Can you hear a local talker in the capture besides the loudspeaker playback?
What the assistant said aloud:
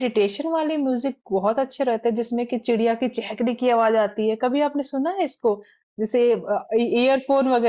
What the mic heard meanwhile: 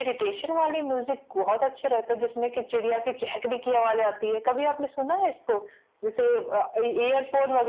No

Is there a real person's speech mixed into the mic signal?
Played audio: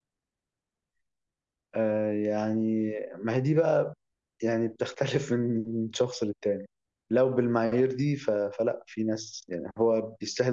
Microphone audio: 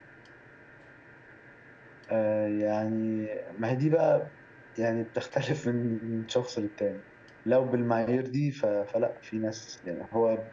No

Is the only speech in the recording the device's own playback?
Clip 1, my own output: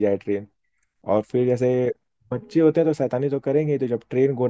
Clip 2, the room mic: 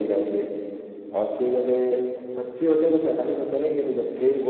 Yes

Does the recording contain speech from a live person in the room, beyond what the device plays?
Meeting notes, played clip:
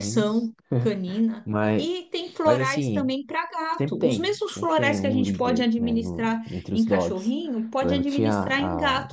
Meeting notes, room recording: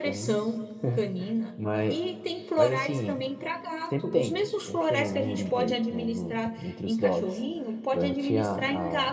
No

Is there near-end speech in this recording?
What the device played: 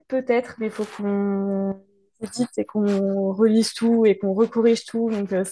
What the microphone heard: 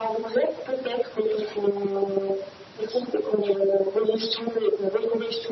No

